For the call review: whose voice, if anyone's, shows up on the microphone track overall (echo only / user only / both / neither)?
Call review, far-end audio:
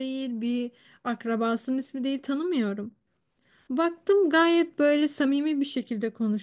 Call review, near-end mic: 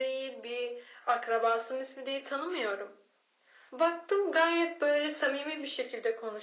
echo only